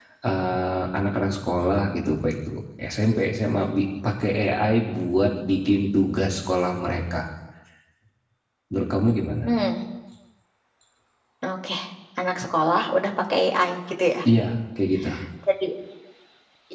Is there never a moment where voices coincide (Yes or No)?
Yes